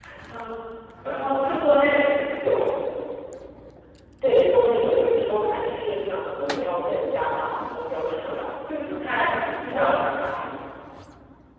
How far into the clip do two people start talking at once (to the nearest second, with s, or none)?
none